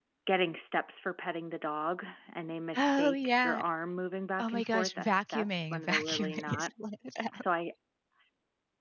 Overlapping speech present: Yes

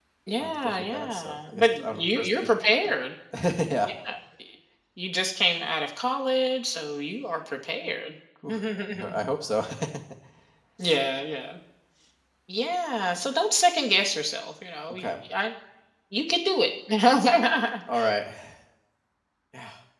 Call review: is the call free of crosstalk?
No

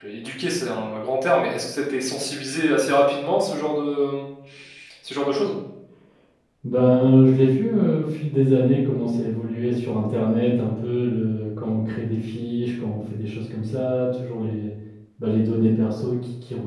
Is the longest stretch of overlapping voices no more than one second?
Yes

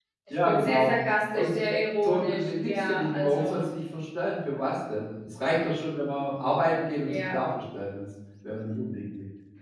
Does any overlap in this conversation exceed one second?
Yes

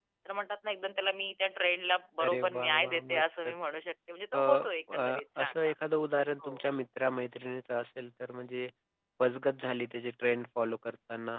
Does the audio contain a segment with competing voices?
Yes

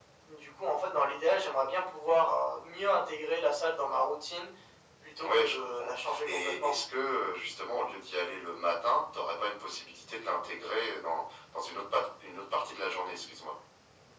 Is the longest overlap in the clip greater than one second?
Yes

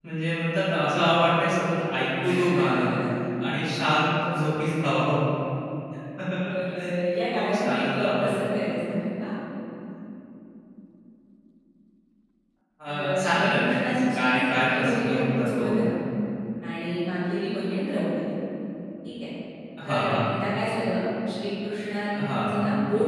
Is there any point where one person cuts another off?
Yes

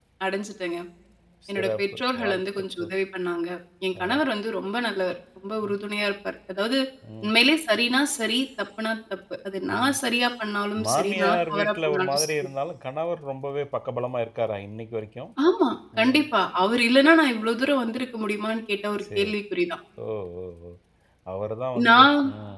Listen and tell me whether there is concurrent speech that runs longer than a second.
Yes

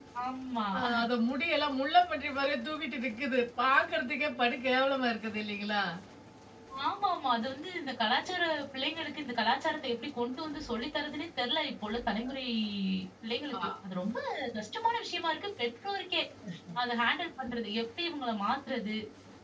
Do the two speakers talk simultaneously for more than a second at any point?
No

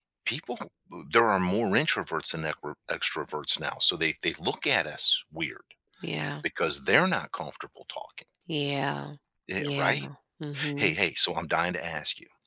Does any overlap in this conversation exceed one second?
No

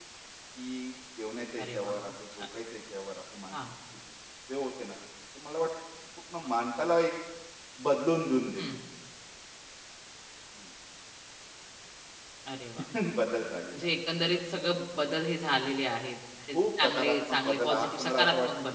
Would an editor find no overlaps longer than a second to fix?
No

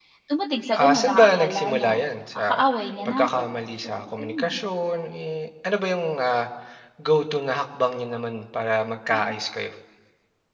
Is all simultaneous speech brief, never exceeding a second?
No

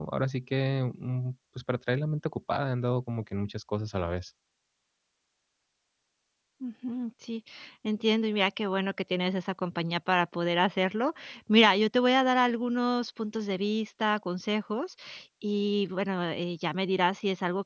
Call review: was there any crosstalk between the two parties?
No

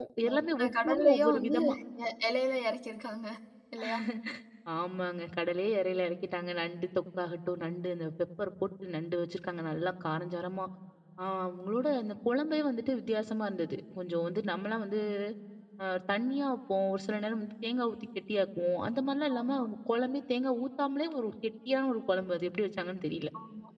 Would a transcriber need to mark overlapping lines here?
Yes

